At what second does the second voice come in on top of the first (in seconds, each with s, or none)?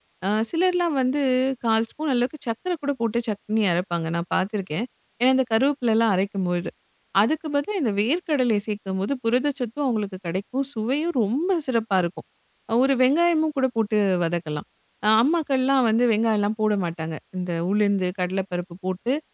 none